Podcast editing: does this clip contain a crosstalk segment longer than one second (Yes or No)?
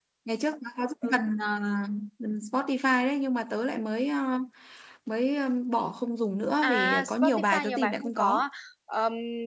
Yes